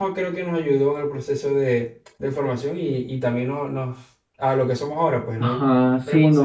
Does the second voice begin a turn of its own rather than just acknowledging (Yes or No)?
Yes